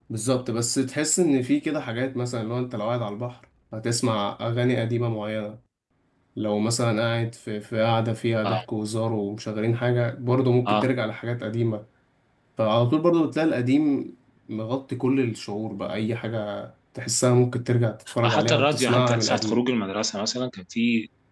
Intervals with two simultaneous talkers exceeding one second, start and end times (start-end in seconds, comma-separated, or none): 18.2-19.6